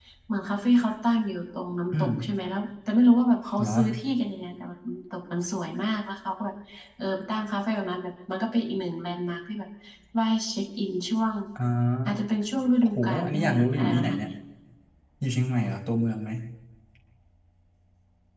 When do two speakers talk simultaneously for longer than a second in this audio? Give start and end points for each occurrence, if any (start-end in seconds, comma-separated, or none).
13.0-14.3